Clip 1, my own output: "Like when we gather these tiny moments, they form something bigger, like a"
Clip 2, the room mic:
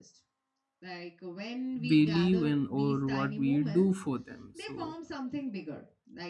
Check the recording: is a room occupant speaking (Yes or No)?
Yes